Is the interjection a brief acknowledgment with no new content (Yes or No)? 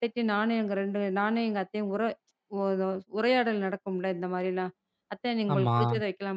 Yes